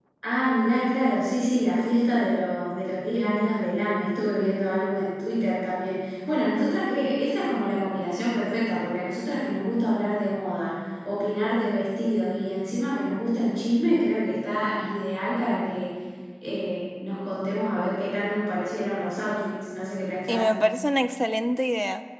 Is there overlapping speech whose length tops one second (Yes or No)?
No